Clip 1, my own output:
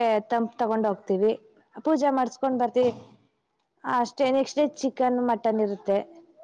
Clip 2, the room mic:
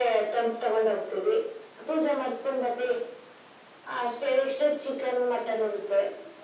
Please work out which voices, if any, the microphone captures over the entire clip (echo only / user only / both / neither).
echo only